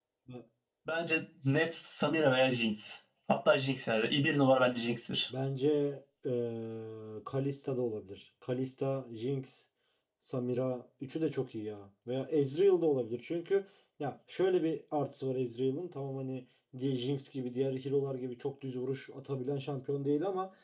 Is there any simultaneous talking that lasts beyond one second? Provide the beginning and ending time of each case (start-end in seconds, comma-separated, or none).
none